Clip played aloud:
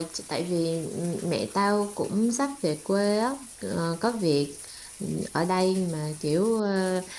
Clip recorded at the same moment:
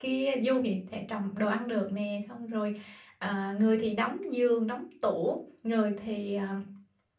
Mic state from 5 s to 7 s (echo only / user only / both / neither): user only